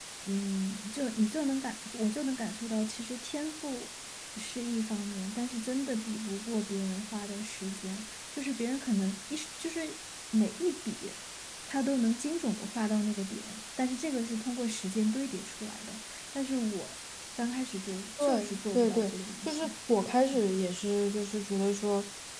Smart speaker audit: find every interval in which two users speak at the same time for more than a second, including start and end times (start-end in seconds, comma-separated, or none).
18.2-19.7